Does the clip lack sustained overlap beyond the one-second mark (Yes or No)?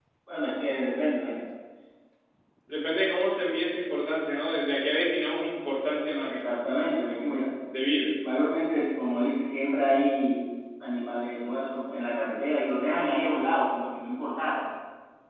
Yes